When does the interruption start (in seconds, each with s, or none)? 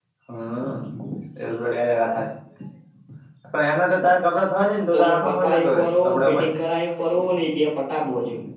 4.9 s